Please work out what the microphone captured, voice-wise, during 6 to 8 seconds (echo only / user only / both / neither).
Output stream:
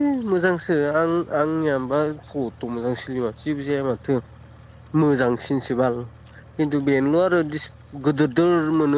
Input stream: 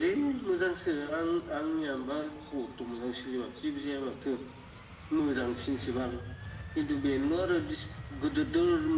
echo only